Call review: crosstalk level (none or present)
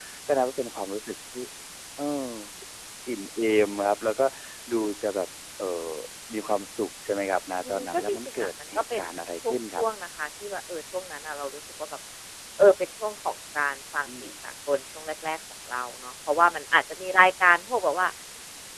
present